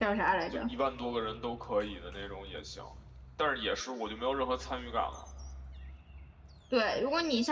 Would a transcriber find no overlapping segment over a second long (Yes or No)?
Yes